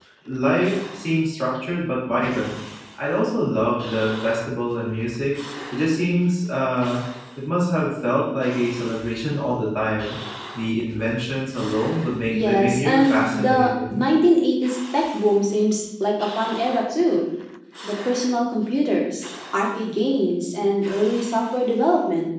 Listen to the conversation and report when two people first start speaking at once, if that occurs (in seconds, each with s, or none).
12.3 s